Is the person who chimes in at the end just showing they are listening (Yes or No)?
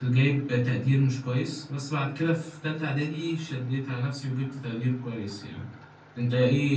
Yes